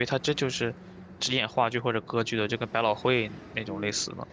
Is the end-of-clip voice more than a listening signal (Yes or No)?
Yes